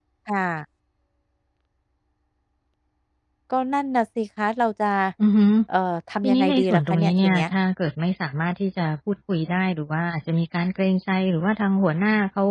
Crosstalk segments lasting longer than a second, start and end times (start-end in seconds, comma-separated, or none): 6.2-7.4